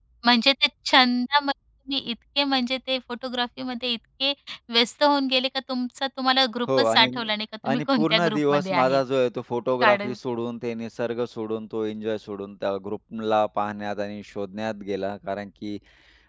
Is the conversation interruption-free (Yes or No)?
No